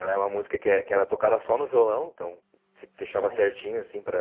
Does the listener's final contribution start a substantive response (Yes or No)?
No